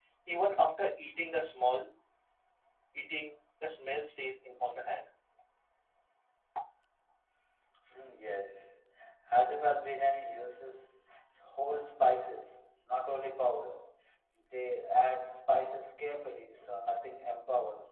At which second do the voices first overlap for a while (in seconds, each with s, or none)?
none